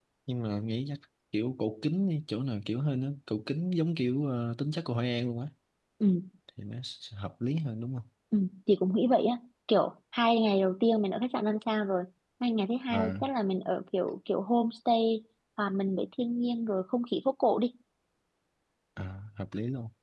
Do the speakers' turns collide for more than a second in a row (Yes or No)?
No